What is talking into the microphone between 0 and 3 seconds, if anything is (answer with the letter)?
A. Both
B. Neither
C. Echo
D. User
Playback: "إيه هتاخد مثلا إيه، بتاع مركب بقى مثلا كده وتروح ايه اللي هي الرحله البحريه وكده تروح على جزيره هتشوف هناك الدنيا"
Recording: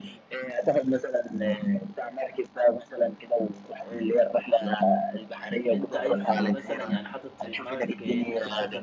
C